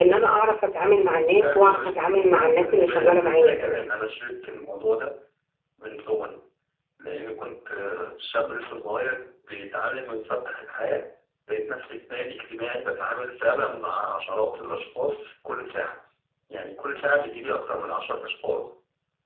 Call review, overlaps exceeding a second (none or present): present